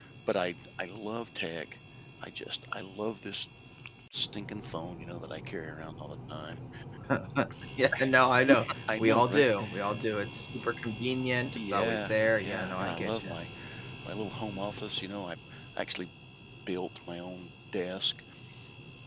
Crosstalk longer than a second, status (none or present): present